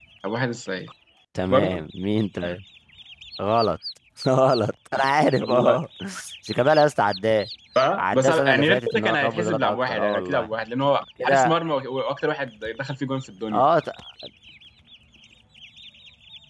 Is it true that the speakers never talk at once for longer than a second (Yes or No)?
No